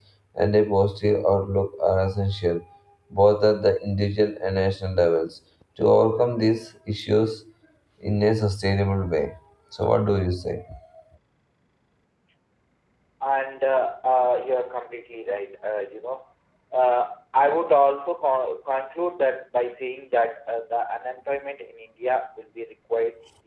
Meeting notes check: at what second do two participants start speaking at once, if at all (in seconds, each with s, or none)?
none